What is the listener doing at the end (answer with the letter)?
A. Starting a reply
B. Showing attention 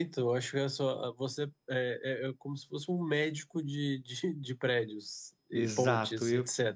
A